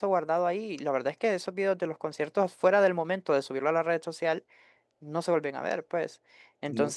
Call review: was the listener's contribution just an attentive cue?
Yes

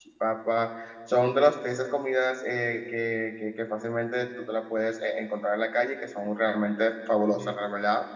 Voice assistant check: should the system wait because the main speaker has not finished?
Yes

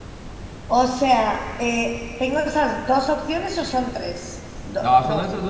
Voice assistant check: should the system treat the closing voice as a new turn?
Yes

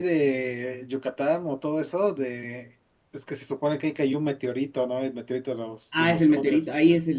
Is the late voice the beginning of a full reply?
Yes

